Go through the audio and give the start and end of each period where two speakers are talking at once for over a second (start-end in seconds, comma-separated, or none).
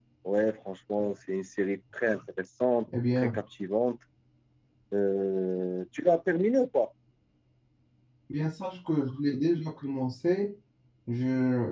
none